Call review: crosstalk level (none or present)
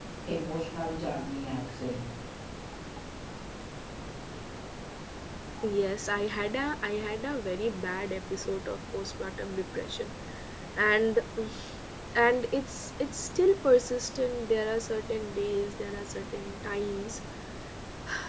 none